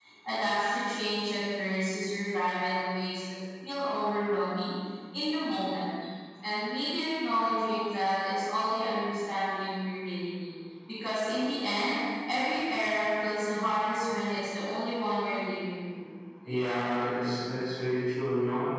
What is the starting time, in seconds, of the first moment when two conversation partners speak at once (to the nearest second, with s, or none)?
none